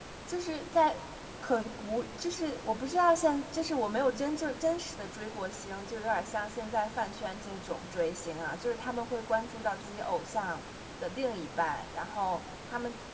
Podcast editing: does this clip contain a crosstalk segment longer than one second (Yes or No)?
No